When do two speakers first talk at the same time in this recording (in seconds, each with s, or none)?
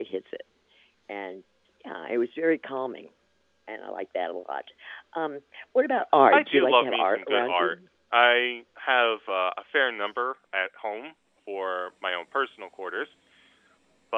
6.3 s